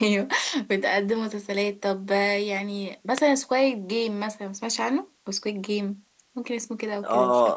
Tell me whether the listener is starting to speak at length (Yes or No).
Yes